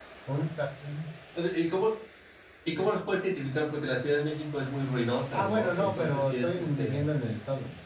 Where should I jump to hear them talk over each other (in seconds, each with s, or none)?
5.3 s